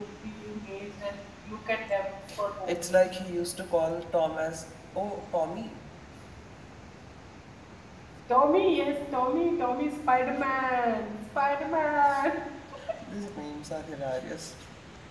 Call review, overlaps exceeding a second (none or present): none